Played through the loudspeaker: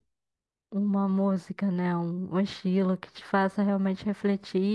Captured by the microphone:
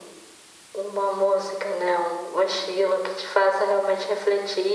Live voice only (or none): none